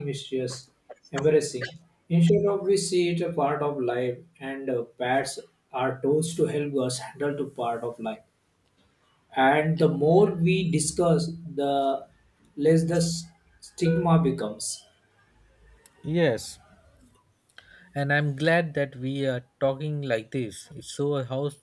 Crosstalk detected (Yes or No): No